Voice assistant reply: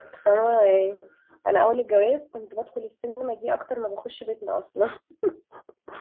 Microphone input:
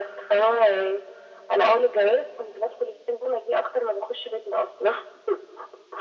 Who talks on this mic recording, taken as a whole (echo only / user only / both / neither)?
echo only